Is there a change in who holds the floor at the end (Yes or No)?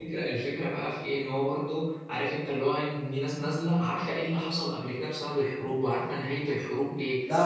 No